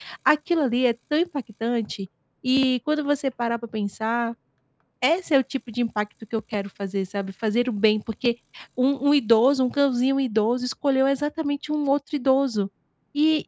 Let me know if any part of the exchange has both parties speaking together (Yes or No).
No